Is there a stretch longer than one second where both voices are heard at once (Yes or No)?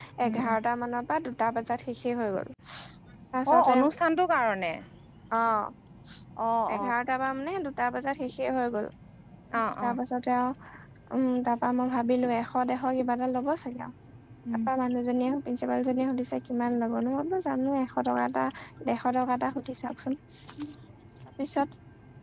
No